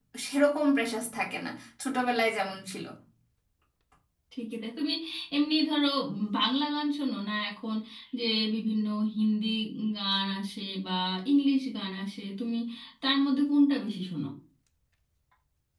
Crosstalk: none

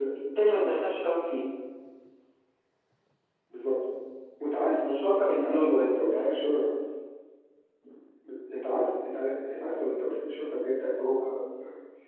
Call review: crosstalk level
present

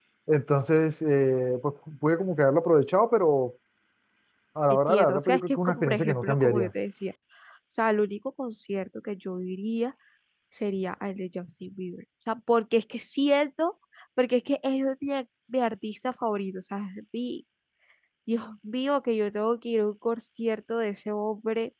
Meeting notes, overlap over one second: present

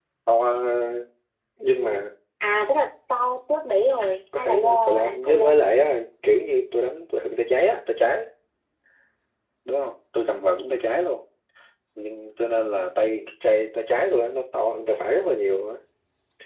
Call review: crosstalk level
present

